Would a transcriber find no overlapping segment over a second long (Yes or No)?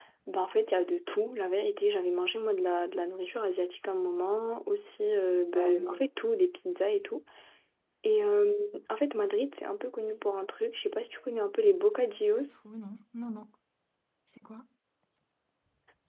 Yes